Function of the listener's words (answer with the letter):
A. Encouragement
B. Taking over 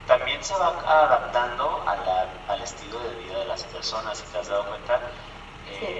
A